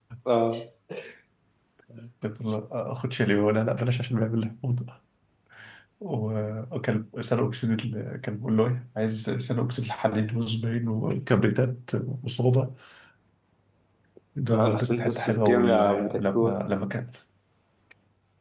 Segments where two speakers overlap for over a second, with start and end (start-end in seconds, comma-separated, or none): 14.5-16.6